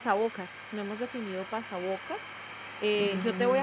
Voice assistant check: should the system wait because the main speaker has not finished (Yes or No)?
Yes